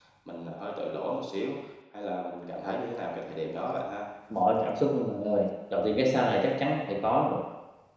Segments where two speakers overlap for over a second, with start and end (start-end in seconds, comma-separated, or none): none